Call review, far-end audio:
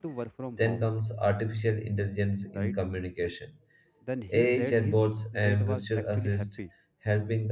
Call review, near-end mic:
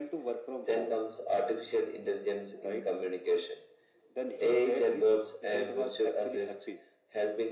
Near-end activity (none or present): none